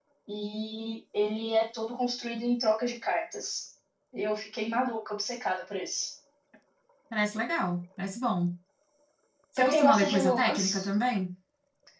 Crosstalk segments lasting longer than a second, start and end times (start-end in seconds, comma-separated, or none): 9.6-10.9